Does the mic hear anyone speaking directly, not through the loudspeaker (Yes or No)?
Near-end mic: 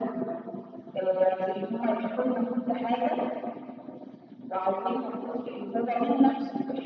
No